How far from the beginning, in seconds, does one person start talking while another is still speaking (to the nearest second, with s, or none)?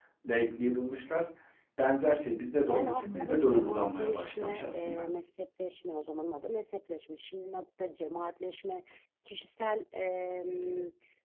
3 s